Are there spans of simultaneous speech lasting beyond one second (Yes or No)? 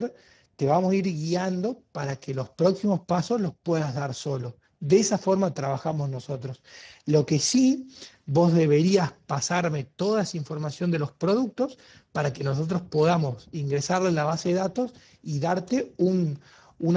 No